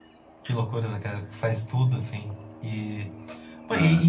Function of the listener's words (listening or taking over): listening